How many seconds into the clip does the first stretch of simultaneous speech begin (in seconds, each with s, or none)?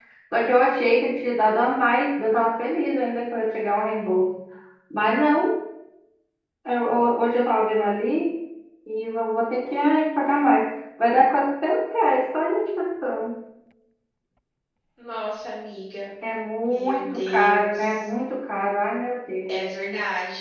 16.6 s